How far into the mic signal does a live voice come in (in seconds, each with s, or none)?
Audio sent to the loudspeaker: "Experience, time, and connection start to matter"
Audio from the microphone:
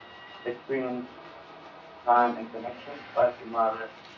2.1 s